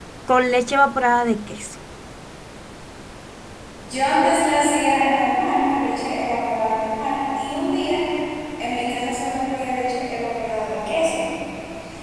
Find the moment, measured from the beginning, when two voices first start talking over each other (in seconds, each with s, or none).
none